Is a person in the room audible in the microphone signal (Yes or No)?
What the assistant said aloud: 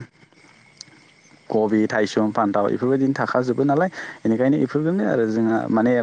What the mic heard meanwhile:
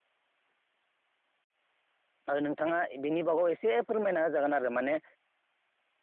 Yes